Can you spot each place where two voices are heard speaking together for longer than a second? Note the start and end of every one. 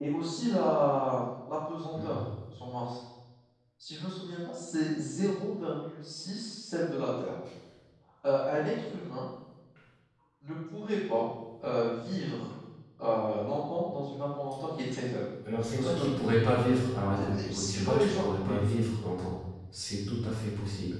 17.2-18.6

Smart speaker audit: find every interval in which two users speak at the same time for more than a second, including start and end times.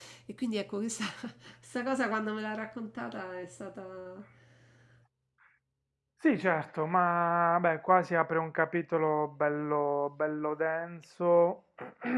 none

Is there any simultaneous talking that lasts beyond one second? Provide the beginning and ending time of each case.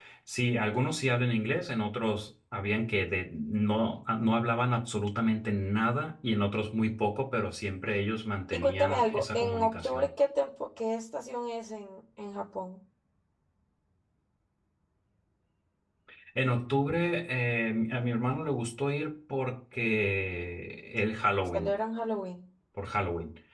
8.5-10.1

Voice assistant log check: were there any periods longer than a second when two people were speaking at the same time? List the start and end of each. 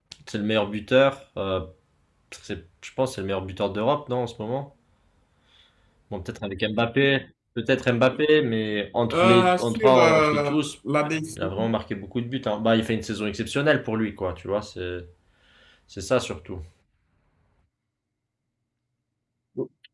9.1-10.6

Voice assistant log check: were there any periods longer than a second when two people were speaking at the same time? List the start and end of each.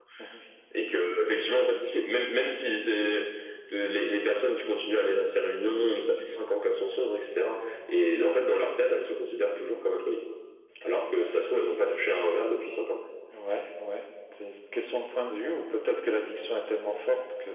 none

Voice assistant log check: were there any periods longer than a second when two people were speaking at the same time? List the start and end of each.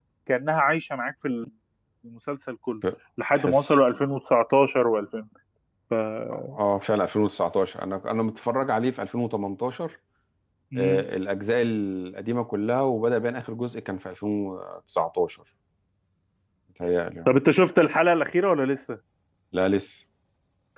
none

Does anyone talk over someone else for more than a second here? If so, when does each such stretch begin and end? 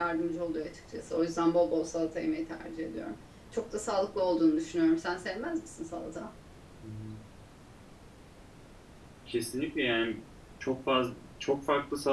none

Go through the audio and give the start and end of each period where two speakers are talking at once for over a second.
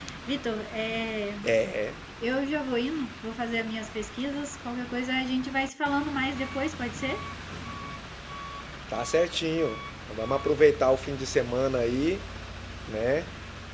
none

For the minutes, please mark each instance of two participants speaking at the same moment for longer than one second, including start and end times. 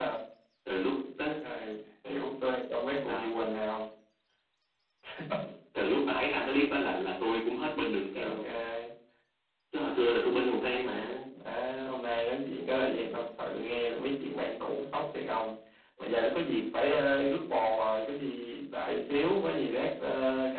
none

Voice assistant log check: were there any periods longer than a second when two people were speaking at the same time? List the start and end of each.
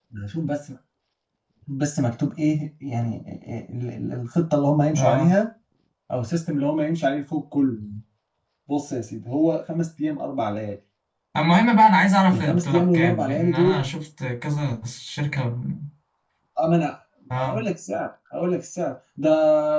12.3-13.8

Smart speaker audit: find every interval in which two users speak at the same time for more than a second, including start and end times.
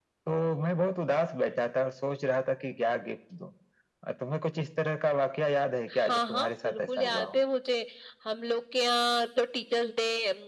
6.0-7.4

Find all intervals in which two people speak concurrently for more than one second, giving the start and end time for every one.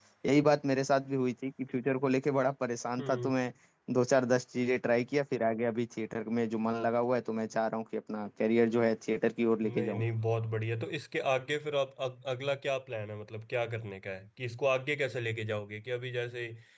none

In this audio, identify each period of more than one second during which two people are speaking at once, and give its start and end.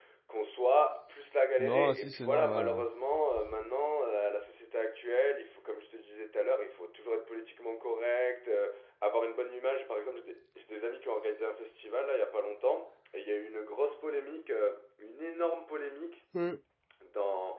1.6-2.8

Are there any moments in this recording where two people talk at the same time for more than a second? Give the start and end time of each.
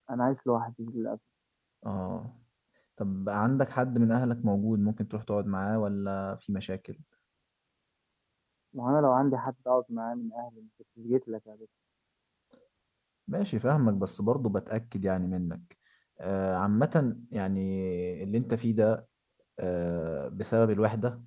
none

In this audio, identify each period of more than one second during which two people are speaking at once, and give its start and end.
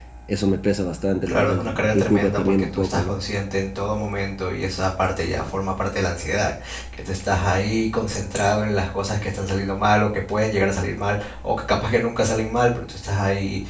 1.3-3.2

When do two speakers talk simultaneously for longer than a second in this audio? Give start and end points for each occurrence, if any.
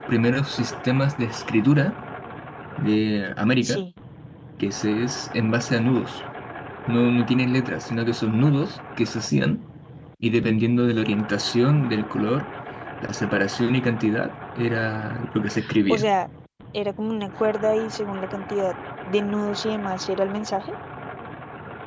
none

